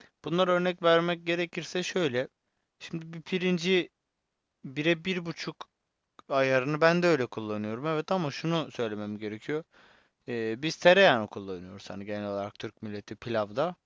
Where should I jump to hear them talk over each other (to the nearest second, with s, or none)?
none